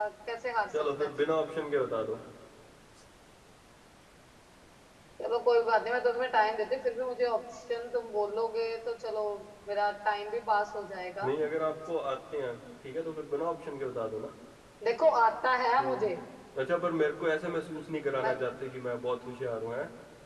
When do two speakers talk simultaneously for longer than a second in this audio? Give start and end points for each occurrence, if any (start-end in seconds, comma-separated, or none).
none